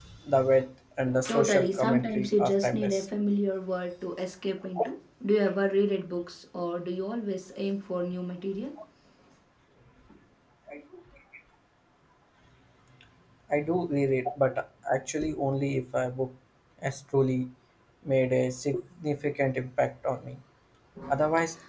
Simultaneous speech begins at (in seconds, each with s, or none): 1.2 s